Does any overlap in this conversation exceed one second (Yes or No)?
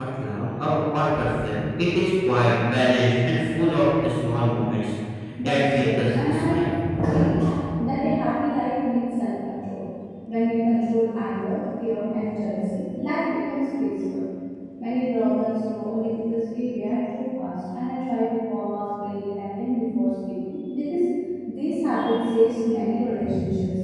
Yes